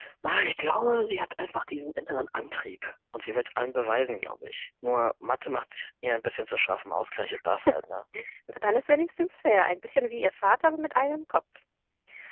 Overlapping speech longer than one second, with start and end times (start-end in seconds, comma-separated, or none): none